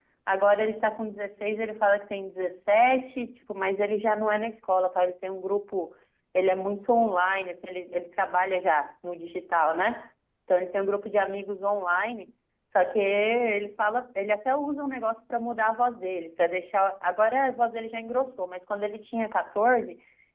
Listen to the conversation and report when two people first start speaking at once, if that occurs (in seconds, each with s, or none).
none